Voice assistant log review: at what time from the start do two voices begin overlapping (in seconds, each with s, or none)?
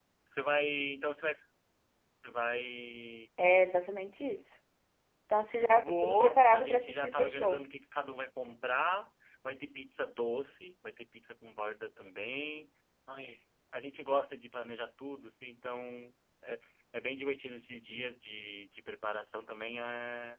5.8 s